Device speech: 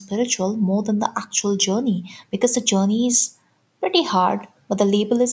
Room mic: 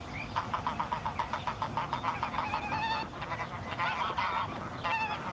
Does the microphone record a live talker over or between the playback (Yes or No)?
No